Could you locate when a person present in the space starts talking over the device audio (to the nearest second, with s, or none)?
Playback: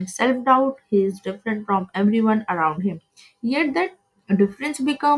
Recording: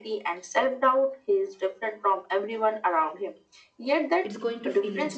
4 s